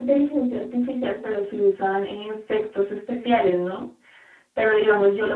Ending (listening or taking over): listening